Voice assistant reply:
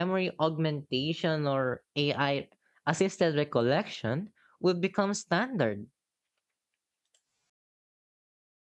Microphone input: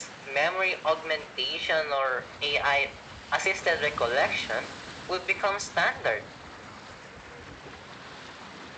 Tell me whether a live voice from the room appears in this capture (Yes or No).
No